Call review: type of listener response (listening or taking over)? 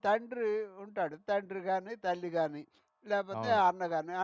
listening